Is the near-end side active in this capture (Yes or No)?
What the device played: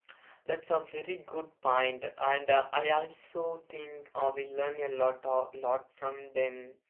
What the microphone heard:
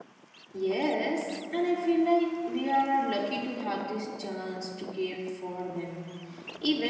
Yes